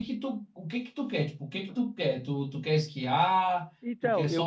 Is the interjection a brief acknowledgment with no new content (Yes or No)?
No